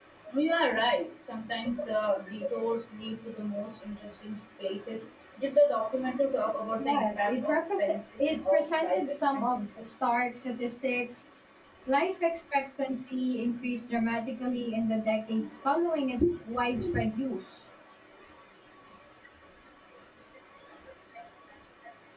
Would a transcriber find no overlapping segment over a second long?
No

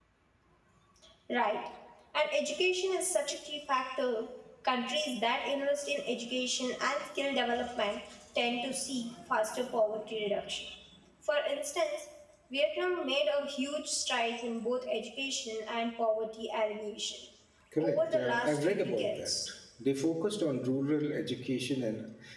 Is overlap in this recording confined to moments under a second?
No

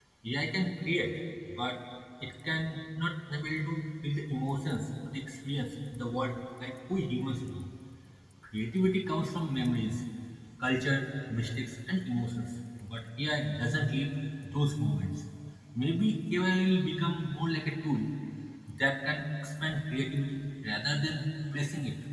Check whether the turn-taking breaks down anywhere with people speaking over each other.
No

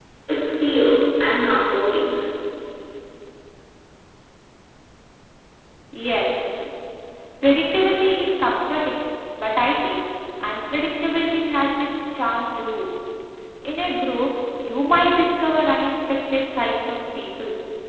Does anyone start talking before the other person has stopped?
No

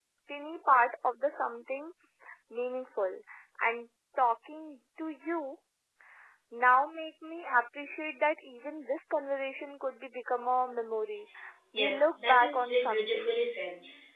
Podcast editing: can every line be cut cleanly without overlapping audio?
No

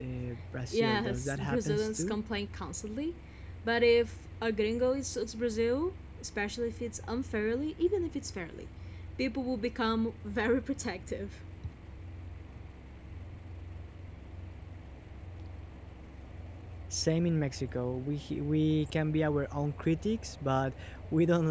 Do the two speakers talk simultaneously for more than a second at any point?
Yes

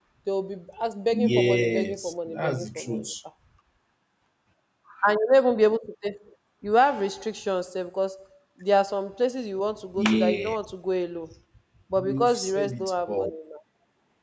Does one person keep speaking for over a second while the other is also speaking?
Yes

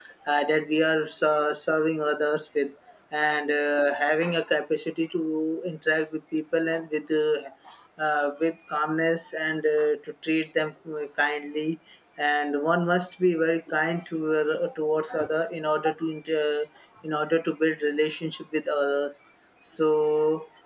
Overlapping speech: No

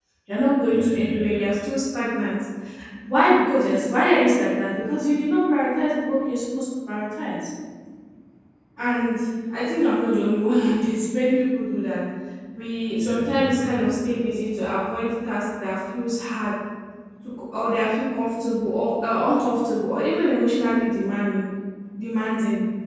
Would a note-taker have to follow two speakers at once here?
Yes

